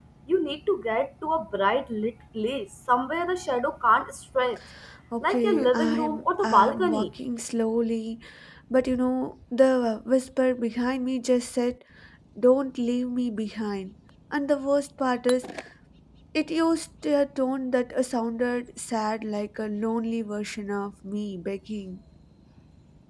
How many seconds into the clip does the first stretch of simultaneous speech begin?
5.2 s

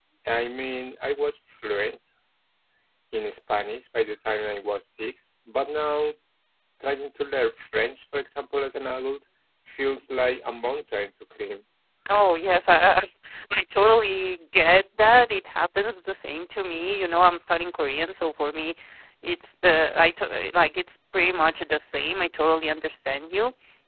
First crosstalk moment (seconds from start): none

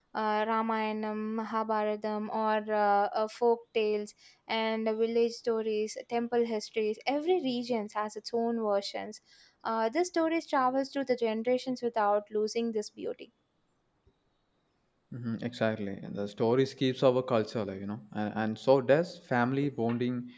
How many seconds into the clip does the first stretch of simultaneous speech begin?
none

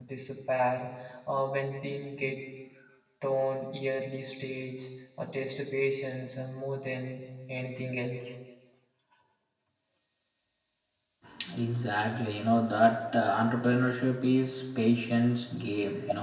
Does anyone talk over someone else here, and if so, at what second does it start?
none

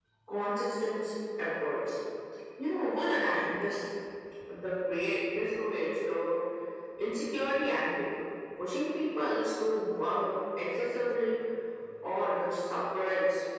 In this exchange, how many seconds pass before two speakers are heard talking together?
none

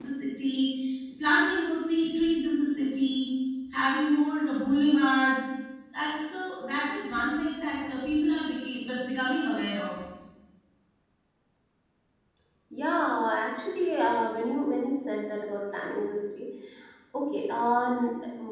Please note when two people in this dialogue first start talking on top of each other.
none

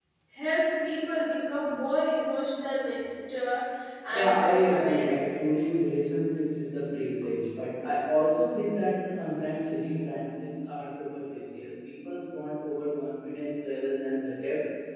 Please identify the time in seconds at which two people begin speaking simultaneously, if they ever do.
4.1 s

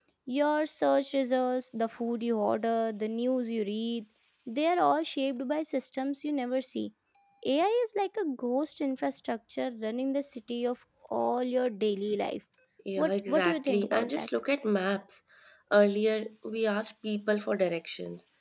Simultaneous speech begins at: 13.0 s

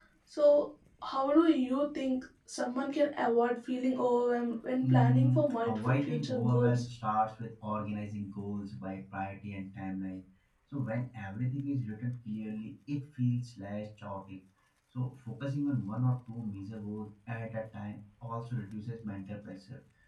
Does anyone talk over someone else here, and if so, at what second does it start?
4.8 s

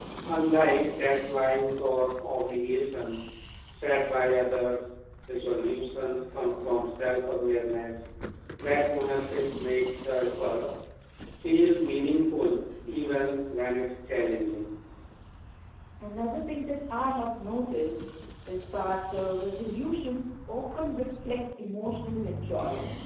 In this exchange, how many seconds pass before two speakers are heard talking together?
none

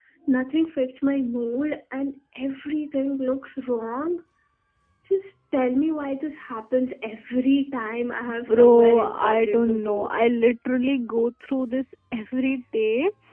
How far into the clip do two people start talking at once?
8.3 s

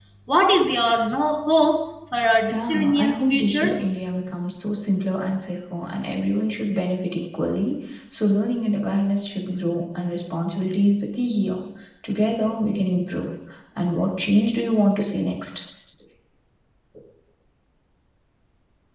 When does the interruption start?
2.5 s

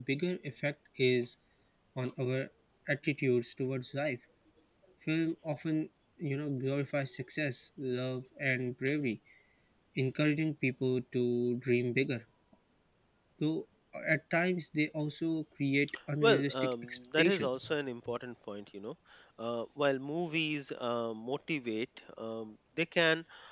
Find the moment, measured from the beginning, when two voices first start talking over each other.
16.2 s

